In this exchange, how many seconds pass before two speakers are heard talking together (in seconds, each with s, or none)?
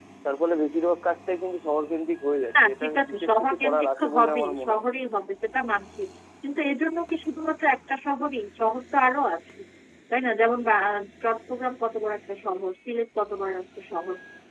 2.6 s